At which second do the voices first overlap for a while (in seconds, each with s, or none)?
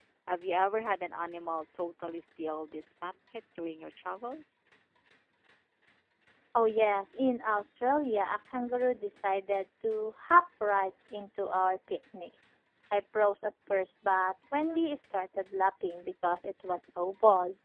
none